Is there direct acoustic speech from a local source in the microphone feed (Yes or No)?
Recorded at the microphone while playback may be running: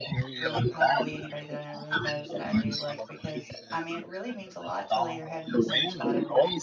Yes